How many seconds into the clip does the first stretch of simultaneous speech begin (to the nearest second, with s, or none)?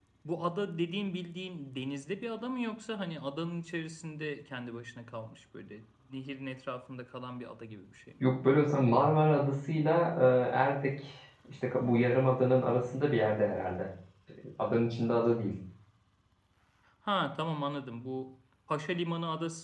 none